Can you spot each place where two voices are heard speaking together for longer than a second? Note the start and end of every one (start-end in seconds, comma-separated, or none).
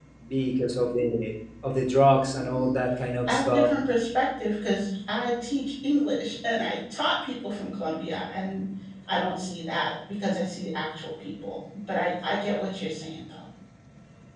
none